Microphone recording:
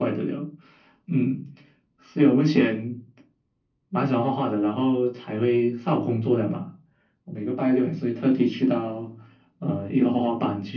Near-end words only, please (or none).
none